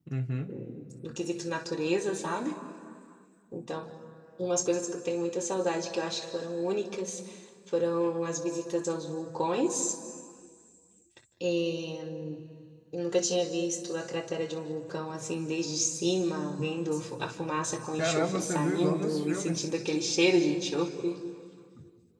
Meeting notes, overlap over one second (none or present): present